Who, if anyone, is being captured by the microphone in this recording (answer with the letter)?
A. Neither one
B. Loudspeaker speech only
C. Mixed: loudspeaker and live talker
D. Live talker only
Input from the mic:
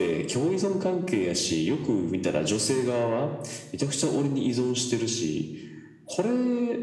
B